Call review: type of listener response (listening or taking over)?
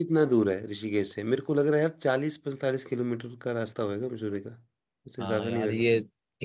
taking over